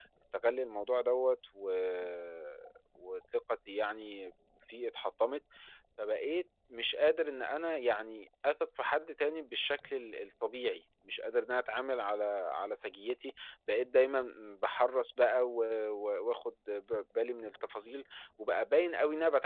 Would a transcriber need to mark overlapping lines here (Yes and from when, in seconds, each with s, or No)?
No